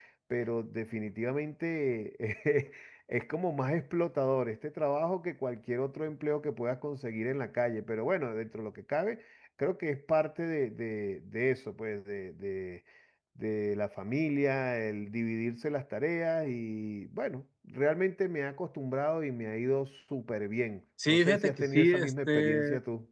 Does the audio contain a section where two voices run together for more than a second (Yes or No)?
Yes